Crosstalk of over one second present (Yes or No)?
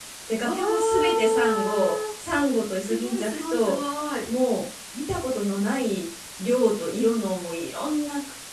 Yes